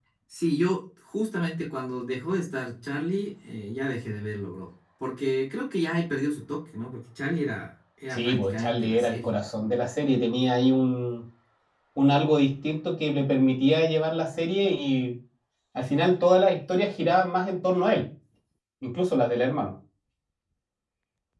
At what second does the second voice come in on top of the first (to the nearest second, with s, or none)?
8 s